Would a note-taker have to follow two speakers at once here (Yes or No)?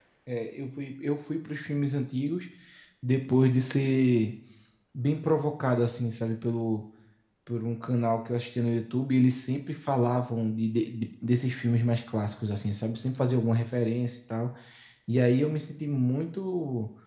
No